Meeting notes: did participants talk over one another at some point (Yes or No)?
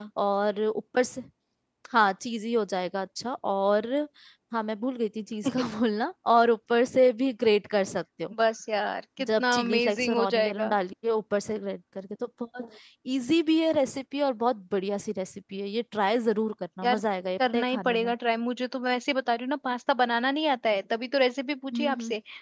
Yes